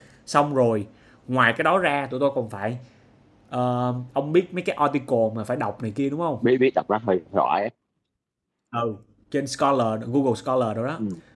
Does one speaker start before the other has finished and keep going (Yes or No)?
No